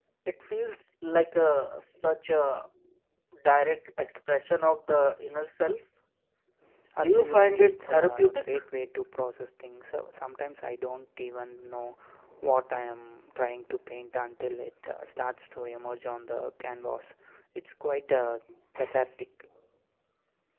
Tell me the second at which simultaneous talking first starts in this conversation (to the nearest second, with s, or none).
7 s